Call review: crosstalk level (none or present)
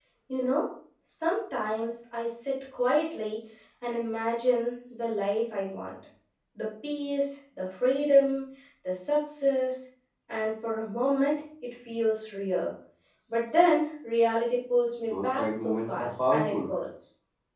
present